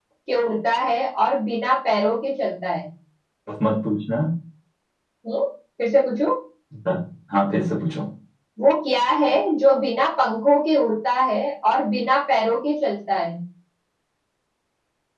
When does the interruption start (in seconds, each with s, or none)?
none